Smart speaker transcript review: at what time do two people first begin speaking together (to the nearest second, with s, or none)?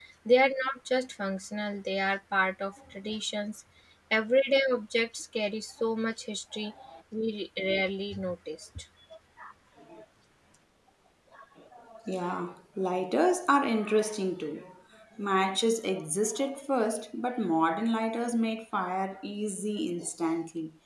none